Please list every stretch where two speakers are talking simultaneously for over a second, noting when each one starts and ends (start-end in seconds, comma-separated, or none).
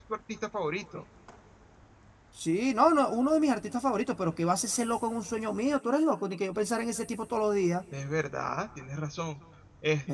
none